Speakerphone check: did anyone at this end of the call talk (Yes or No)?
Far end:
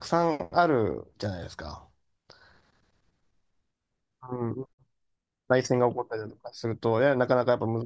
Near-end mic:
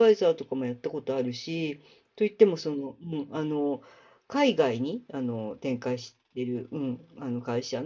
Yes